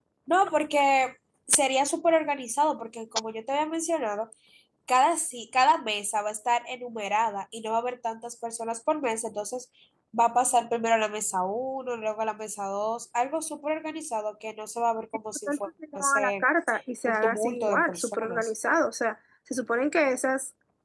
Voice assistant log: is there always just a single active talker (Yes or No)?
No